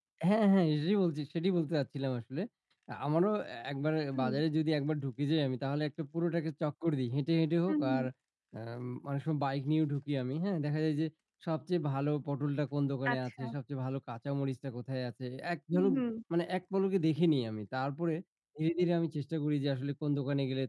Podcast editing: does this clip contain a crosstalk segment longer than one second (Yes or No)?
No